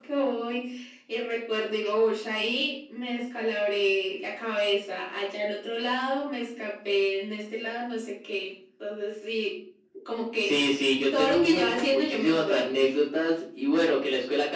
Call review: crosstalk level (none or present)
present